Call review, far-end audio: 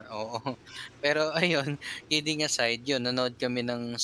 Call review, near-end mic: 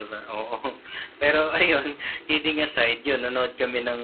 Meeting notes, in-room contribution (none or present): none